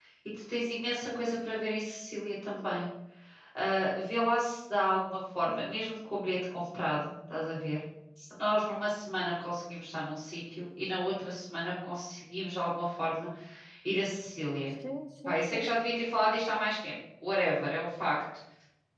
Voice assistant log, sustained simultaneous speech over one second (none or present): none